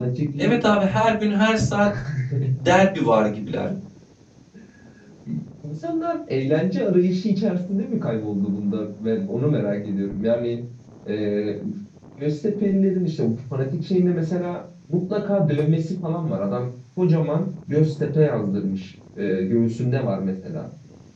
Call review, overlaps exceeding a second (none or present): none